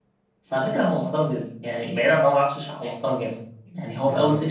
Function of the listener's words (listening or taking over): listening